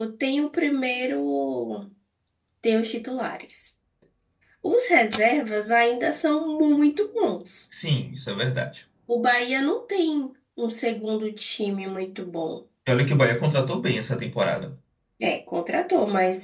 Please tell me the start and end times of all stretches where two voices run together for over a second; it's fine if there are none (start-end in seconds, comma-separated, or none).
none